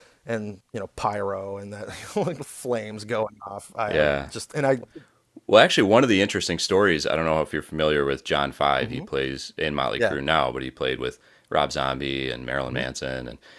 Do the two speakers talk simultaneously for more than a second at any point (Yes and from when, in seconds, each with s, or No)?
No